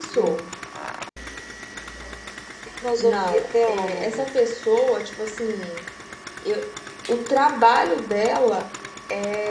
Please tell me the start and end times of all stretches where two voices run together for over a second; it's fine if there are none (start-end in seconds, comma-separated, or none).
3.0-4.2